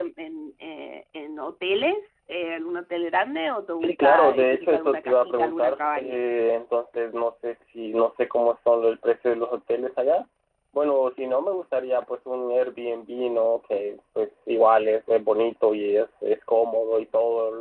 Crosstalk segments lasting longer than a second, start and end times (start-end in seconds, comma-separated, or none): 3.8-6.2